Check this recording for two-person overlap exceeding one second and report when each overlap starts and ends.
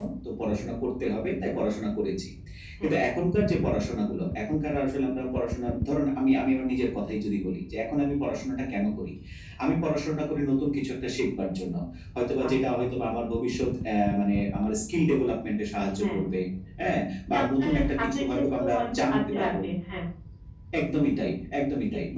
17.3-19.5

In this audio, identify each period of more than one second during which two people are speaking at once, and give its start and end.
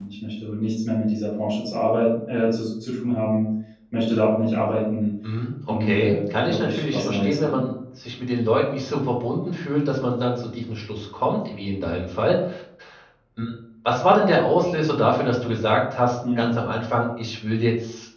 5.8-7.7

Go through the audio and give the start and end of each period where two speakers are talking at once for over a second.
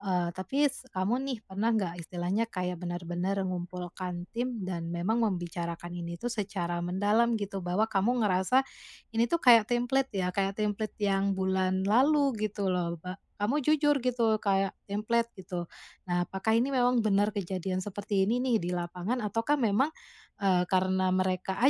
none

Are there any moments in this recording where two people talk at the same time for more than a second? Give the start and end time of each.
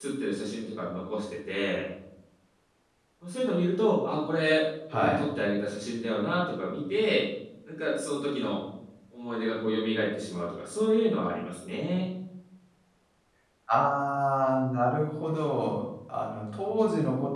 none

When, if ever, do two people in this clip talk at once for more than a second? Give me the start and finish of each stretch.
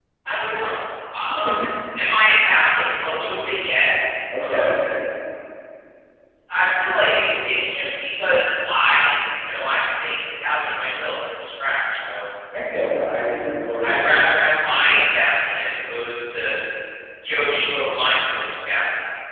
none

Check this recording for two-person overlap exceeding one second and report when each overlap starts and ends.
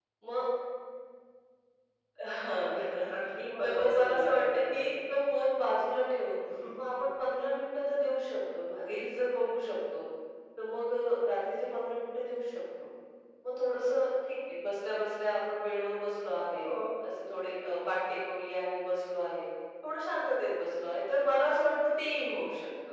3.6-4.9

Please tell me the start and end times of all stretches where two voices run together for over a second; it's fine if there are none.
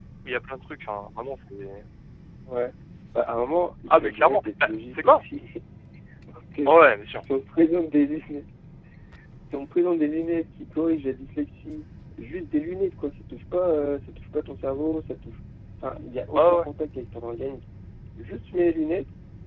3.9-5.2

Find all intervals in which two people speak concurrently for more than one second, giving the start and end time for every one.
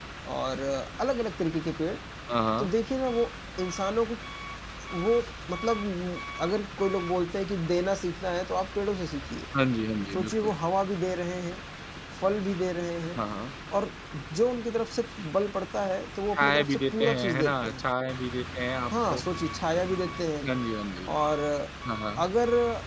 16.3-17.8

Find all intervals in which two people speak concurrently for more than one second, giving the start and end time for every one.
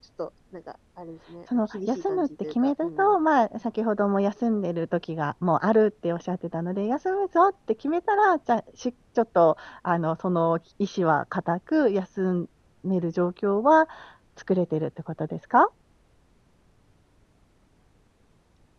1.7-3.1

